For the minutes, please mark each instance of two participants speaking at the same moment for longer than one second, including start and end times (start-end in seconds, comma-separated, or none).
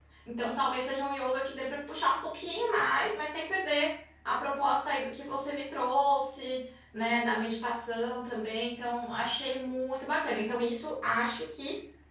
none